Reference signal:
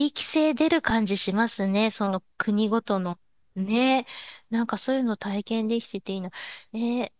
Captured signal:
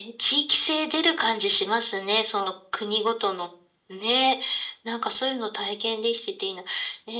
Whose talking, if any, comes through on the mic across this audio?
echo only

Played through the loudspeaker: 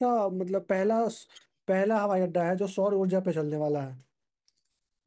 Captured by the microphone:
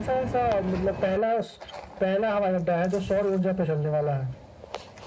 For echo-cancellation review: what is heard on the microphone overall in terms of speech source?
echo only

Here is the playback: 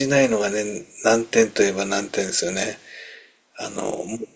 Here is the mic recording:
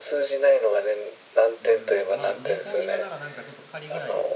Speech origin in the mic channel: both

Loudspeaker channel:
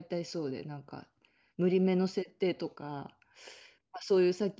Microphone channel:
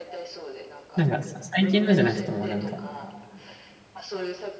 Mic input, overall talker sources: both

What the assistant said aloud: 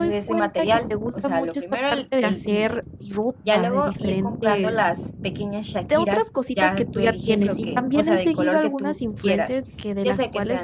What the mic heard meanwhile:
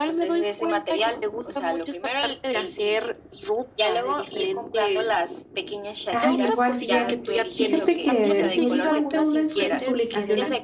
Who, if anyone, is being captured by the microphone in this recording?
both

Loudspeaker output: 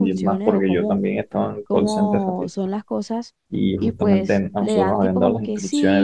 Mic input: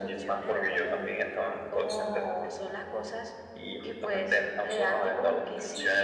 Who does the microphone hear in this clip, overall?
echo only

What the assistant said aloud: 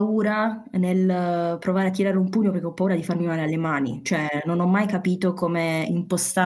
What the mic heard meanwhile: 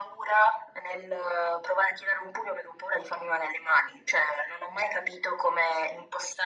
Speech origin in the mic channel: echo only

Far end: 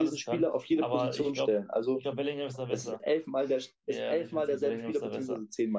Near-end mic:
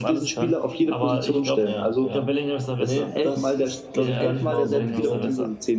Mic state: both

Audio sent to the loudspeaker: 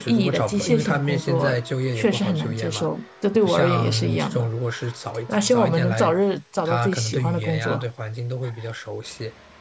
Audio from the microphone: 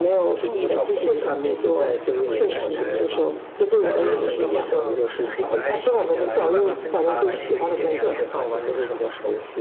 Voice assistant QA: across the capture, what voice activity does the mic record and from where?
both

